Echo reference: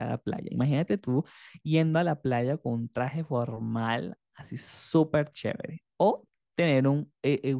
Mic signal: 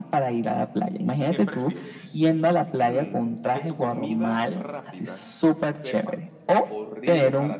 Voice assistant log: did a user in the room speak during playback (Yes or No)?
Yes